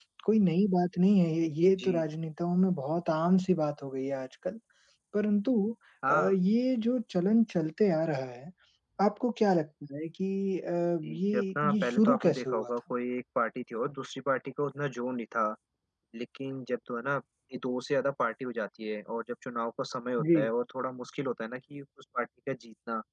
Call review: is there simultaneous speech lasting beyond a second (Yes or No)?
Yes